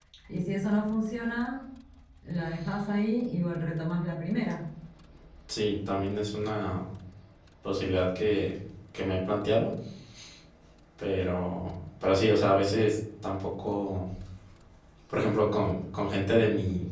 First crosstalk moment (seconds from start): none

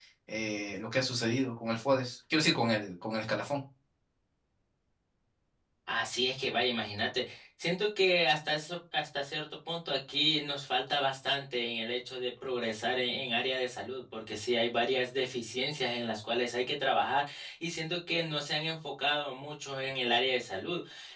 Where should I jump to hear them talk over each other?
none

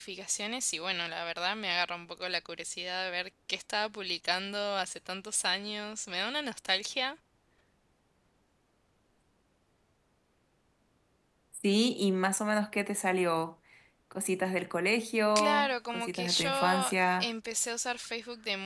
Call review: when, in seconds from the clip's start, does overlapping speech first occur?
15 s

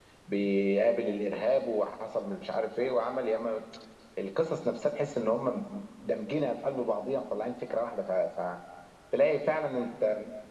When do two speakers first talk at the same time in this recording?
none

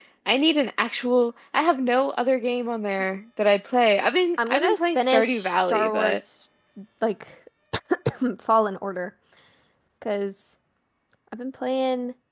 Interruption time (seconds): 4 s

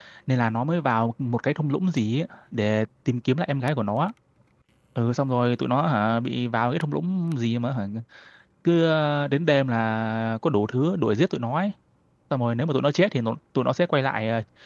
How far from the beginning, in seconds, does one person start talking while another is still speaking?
none

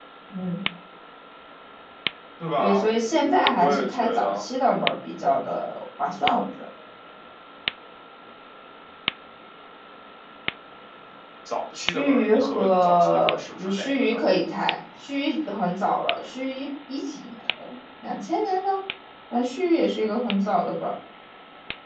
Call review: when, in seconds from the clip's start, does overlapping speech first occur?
3 s

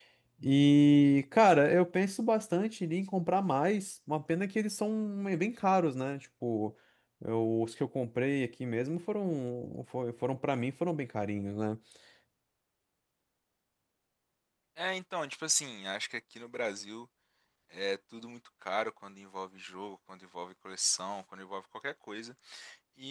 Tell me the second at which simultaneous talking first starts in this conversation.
none

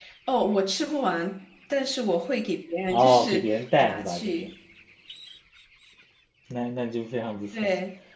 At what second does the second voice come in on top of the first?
3 s

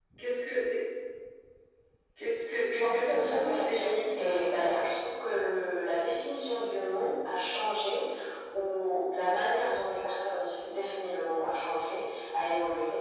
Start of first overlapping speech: 3 s

